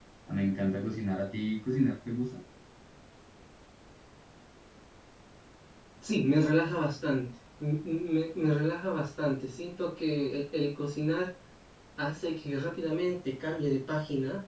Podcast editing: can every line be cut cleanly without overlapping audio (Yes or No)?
Yes